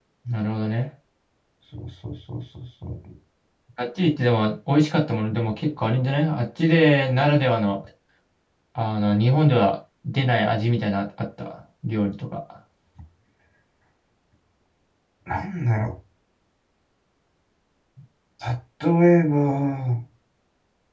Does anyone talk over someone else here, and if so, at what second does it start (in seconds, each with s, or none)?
none